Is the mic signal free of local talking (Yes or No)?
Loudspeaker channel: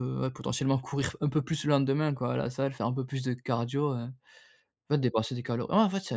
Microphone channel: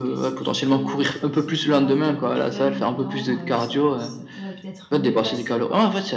No